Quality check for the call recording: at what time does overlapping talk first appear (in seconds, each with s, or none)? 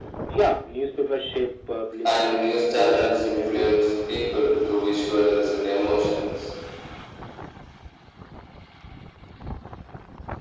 2.0 s